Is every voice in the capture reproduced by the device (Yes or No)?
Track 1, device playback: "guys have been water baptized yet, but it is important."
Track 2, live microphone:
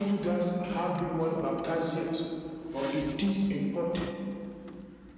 Yes